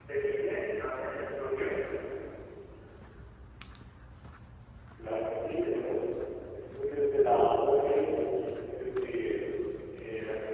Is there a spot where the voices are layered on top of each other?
No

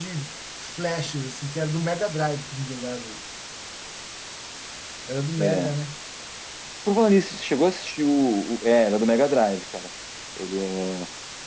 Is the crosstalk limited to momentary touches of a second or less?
Yes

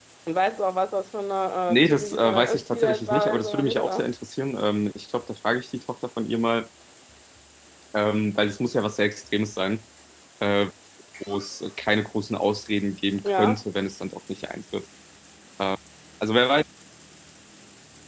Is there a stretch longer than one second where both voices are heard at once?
Yes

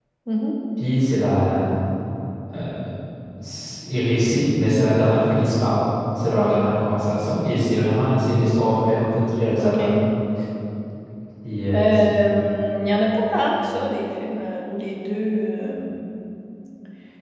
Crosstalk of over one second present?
No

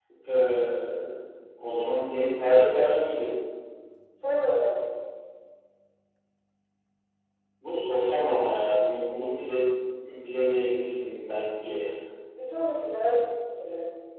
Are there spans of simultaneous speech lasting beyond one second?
No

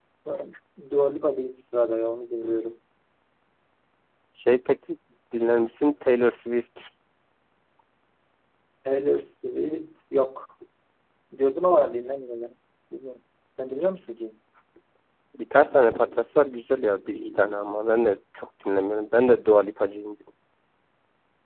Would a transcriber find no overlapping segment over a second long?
Yes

